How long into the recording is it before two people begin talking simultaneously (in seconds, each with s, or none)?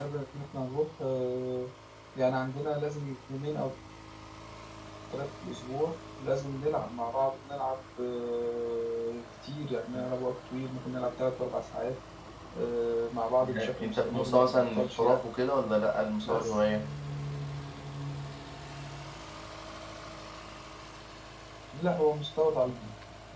13.4 s